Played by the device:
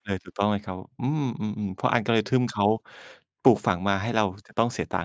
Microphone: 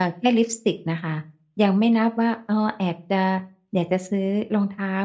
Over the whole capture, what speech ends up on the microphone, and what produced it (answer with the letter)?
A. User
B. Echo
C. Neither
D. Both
A